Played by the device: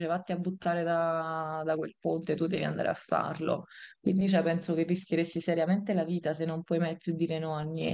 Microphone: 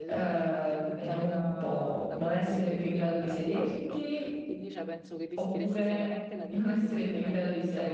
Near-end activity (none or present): present